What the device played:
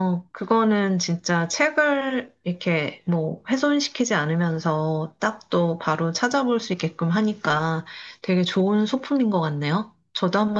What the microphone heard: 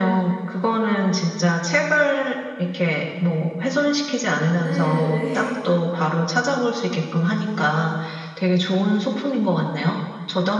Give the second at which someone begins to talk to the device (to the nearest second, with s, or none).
5 s